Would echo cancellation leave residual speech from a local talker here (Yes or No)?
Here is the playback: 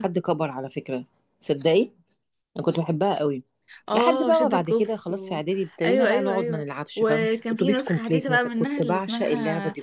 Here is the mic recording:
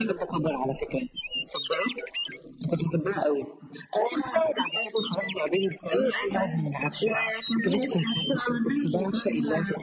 No